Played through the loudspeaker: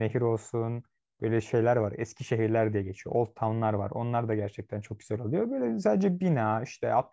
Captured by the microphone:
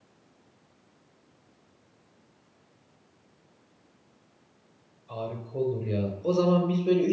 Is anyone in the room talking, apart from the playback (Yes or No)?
Yes